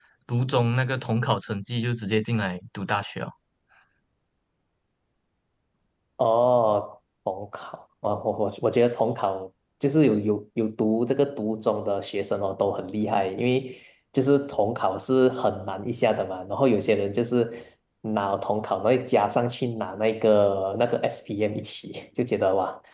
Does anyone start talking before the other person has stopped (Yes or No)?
No